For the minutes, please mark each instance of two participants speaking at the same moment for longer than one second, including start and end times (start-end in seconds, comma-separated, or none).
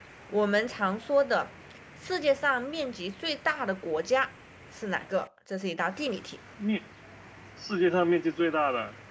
none